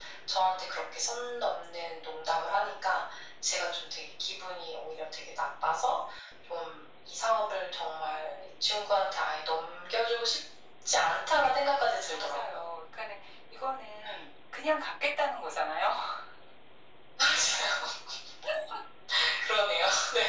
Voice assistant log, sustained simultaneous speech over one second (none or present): none